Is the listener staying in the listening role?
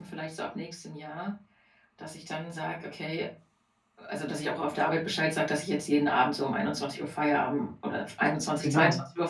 Yes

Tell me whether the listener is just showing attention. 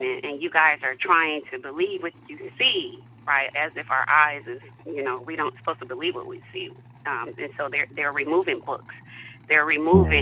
Yes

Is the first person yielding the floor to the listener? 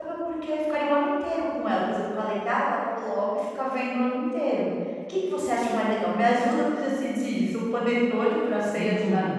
Yes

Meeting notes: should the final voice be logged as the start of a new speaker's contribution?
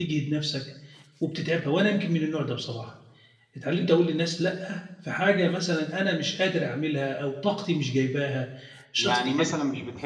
Yes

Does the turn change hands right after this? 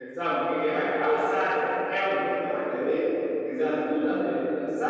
No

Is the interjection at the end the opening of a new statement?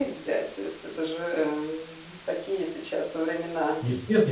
Yes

